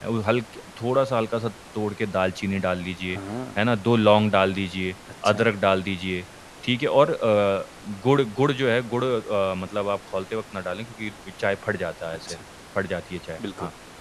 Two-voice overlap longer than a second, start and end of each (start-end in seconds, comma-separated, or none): none